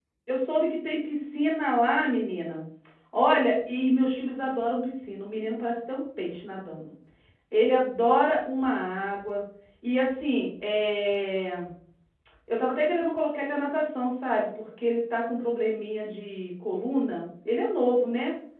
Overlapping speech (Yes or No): No